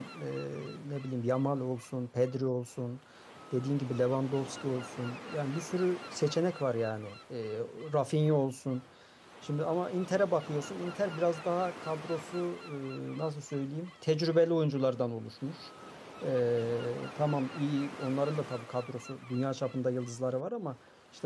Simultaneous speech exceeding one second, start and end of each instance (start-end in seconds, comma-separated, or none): none